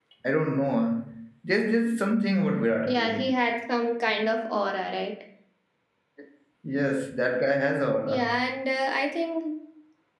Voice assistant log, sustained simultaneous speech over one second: none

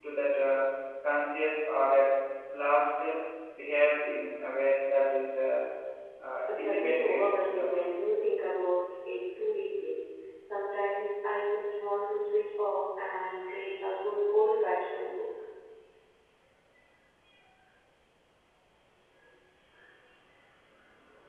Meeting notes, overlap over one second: present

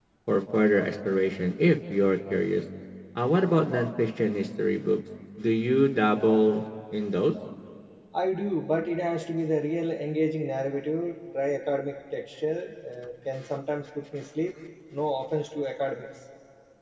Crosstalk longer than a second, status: none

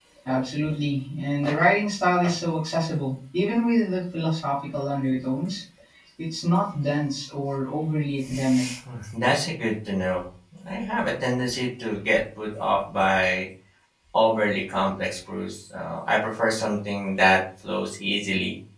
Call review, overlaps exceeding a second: none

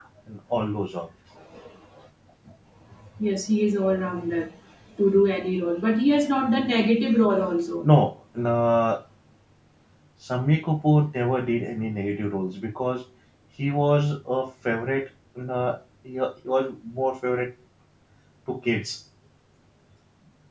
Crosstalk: none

